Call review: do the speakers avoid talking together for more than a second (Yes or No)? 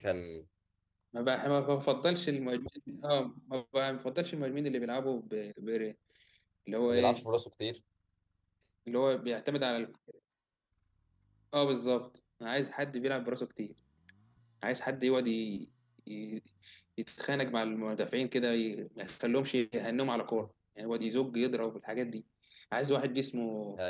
Yes